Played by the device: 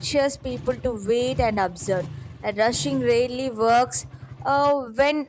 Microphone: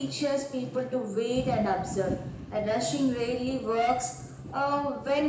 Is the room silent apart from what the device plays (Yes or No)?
Yes